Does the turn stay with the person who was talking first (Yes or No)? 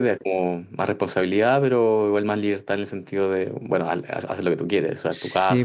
No